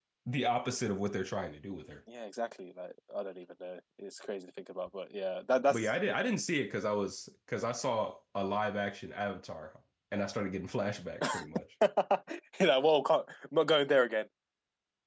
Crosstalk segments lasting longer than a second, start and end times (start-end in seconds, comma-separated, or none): none